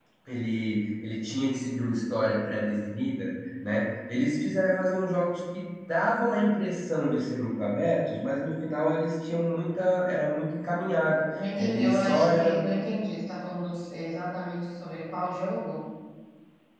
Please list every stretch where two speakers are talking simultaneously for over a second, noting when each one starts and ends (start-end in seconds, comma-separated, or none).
11.3-12.6